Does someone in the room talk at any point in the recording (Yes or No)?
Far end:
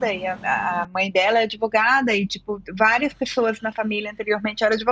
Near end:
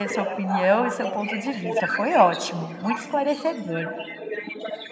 Yes